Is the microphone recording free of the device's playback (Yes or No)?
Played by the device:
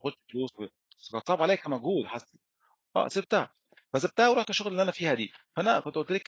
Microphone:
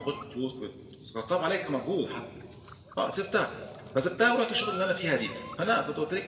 No